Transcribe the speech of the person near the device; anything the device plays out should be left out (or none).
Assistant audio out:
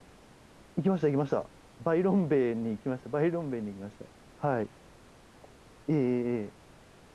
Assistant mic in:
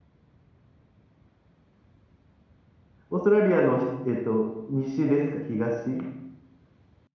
オーストラリアの、えっと、西ですか東